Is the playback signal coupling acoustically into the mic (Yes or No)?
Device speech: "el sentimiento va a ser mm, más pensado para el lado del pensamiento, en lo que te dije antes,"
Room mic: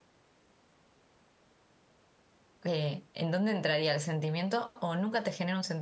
No